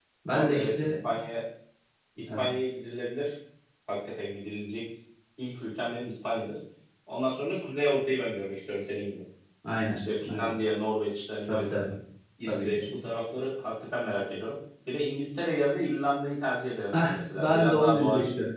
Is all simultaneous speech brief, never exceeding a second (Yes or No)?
No